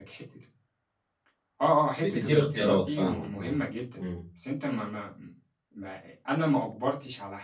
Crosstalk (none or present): present